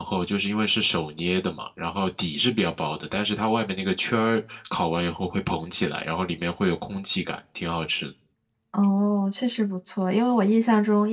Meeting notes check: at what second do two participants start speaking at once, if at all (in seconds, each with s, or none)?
none